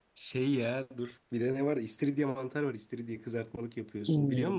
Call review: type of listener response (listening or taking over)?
taking over